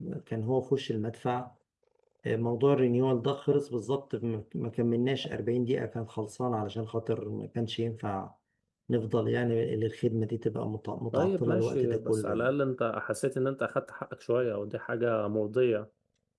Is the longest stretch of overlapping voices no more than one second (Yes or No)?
No